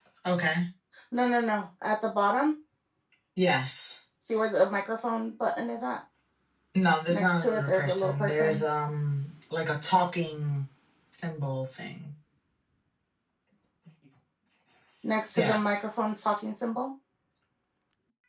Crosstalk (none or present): present